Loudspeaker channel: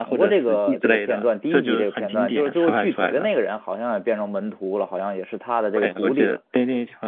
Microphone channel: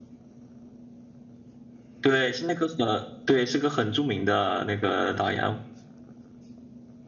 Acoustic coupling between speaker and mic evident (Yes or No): No